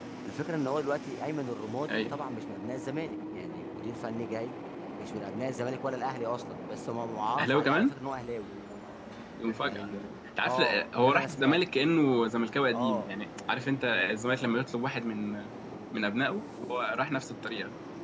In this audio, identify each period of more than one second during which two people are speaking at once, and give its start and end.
10.4-11.7

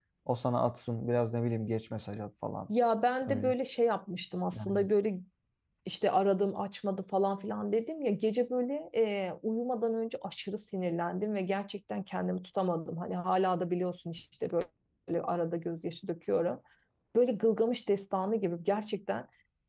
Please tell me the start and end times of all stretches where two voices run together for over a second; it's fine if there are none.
none

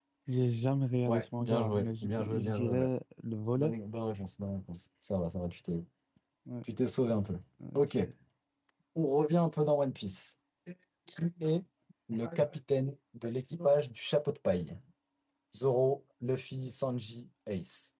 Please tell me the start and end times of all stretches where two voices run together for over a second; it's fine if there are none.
1.1-2.9

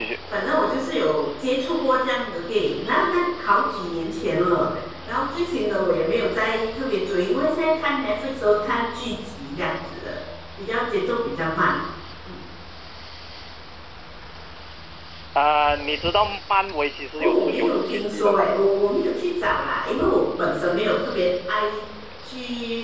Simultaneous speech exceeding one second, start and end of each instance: 17.2-18.5

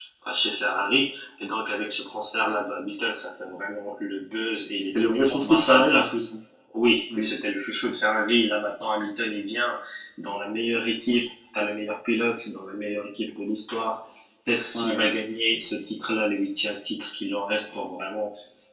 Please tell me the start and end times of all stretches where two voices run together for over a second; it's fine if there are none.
4.8-6.1

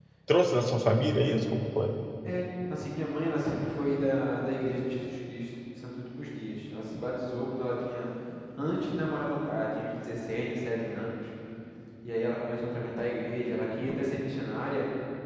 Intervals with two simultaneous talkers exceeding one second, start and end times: none

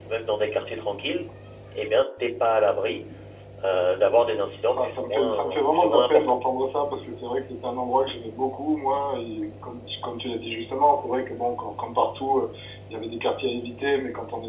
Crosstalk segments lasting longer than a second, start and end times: 4.8-6.4

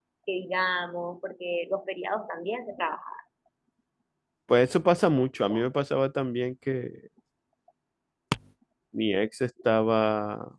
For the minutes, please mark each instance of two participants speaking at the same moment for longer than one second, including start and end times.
none

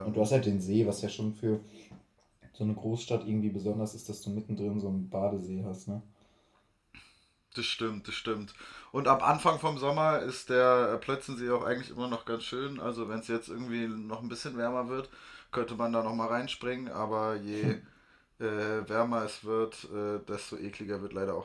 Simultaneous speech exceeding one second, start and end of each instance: none

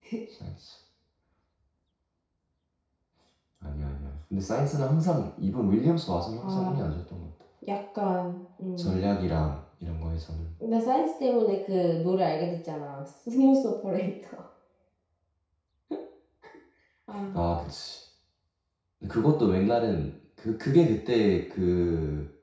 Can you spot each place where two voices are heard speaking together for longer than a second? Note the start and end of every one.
none

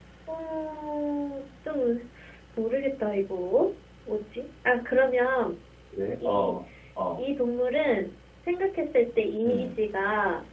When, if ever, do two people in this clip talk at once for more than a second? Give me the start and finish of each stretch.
none

